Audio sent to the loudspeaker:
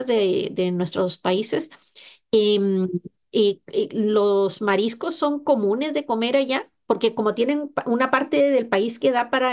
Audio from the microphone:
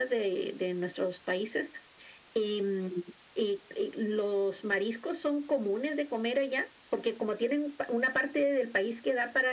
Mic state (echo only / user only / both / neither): echo only